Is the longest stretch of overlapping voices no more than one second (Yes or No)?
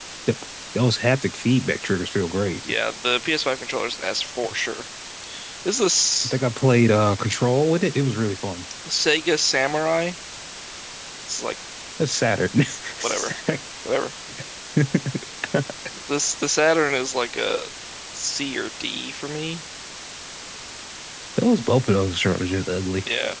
Yes